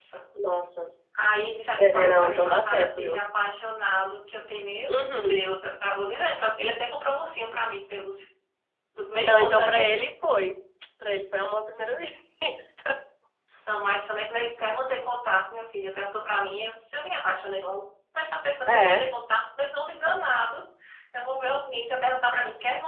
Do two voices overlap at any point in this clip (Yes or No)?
Yes